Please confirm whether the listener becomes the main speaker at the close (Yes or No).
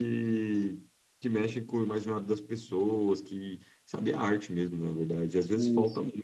No